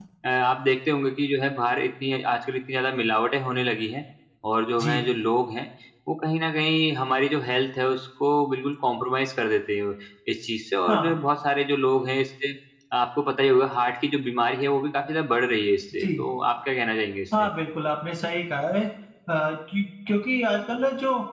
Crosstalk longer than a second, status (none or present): none